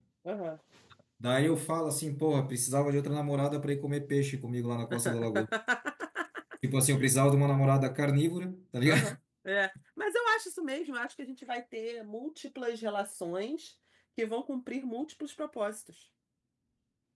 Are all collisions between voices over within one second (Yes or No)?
Yes